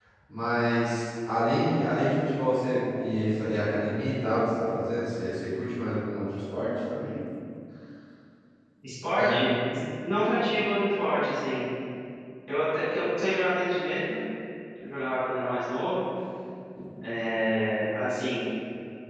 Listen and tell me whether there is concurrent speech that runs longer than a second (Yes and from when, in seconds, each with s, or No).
No